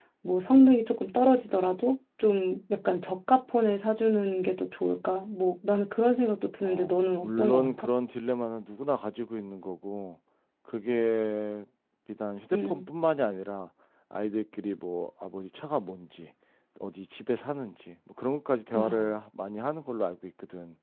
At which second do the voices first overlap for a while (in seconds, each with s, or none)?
6.6 s